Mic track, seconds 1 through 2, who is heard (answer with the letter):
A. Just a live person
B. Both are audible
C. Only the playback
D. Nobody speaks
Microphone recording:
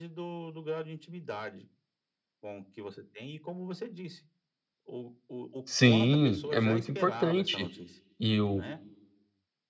C